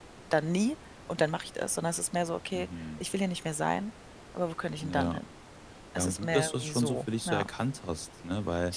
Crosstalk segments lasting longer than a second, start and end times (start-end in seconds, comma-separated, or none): 6.0-7.5